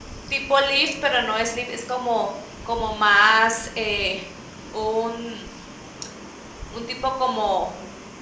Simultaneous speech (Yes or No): No